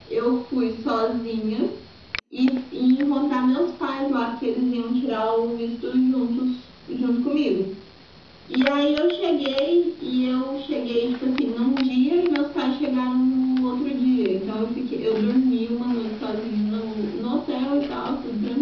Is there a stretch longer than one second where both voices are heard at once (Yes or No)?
No